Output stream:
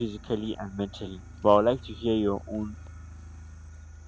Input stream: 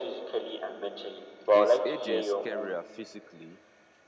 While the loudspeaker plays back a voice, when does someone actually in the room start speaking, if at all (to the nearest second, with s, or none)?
2 s